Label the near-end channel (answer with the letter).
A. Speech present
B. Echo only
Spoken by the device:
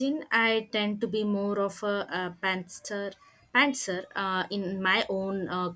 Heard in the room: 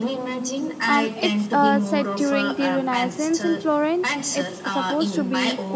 A